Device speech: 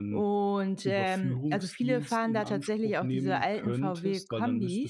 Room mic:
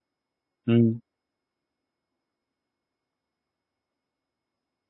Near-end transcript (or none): mhm,